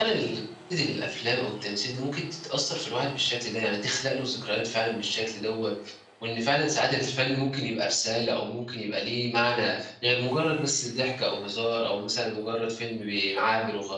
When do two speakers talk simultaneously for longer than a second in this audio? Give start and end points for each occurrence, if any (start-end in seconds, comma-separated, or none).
none